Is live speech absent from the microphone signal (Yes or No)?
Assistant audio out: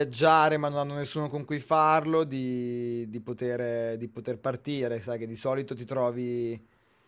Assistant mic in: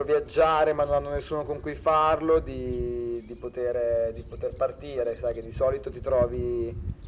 Yes